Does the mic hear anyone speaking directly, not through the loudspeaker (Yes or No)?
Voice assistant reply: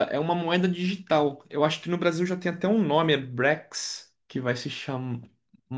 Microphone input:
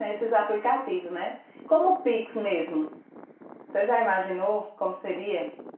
Yes